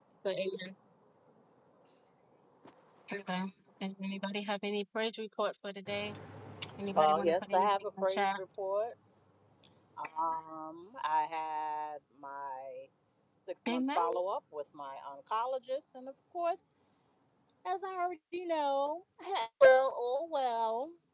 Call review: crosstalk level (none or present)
present